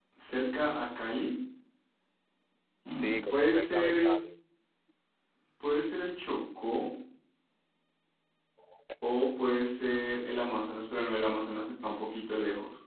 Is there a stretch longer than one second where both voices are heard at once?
Yes, from 2.9 s

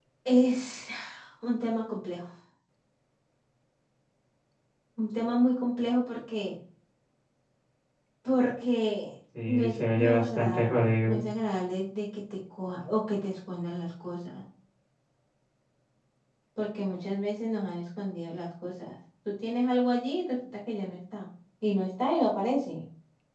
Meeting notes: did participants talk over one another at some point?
Yes, from 9.3 s

